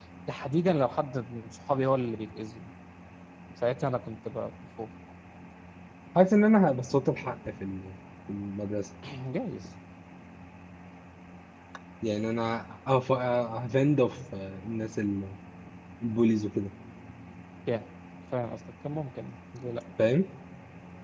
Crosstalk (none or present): none